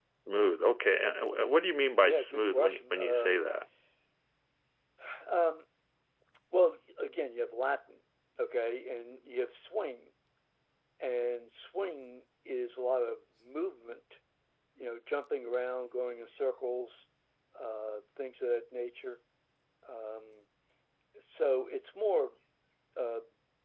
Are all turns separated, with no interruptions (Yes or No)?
No